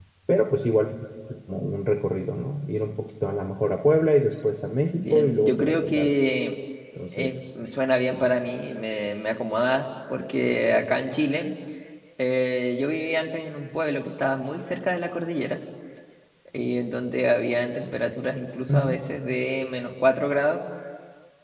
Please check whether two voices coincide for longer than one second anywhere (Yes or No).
Yes